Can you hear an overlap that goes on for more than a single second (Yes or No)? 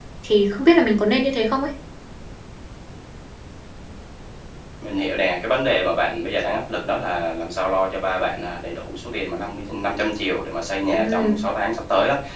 No